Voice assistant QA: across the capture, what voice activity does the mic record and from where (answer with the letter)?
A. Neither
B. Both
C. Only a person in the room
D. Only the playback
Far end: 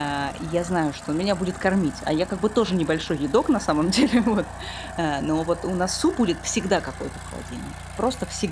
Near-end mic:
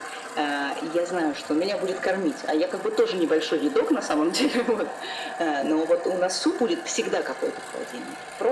D